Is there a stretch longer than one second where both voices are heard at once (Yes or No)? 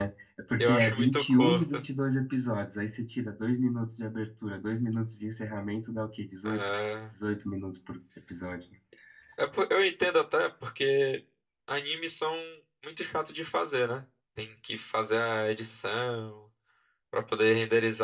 Yes